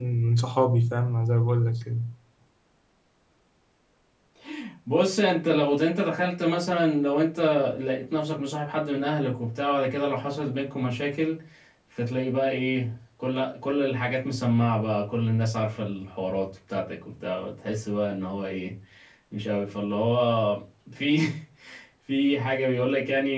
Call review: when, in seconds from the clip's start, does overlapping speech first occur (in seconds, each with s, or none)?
none